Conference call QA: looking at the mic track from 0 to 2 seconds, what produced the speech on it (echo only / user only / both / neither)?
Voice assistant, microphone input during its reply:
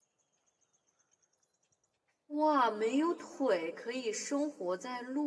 neither